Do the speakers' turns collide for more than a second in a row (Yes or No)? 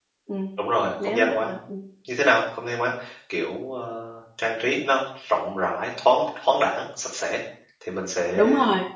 No